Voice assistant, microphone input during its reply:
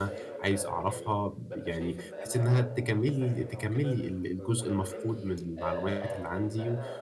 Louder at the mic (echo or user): user